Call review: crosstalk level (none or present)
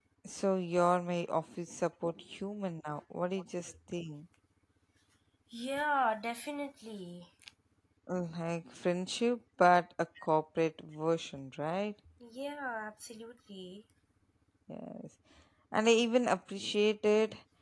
none